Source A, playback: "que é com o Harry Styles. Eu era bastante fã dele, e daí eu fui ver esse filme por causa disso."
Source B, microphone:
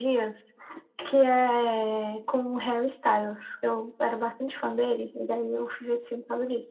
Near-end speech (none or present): none